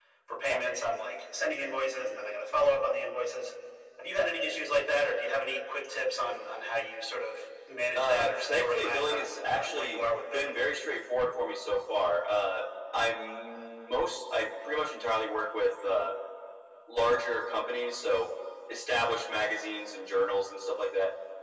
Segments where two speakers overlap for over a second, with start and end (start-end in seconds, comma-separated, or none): 7.9-10.6